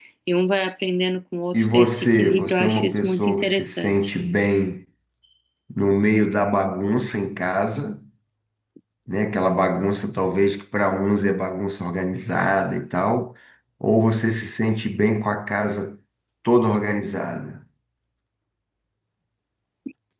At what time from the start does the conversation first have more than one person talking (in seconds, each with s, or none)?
1.5 s